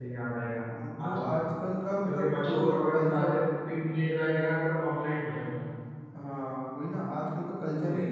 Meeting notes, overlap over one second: present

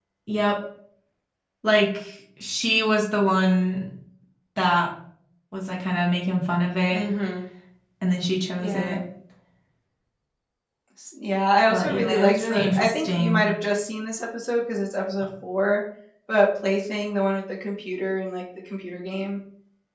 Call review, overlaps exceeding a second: present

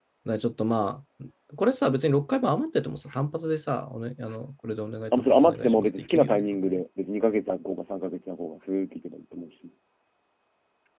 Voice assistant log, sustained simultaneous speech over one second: present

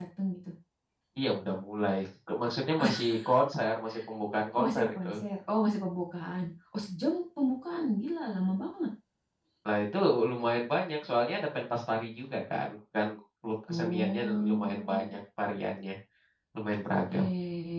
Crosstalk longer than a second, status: present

